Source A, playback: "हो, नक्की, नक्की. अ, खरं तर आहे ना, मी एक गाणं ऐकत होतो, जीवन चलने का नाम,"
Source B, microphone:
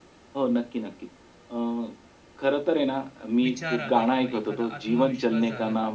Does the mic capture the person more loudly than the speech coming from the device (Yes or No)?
No